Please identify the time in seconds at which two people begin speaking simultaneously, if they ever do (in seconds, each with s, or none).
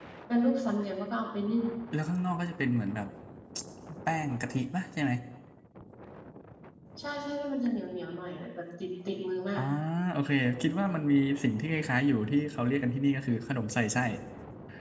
none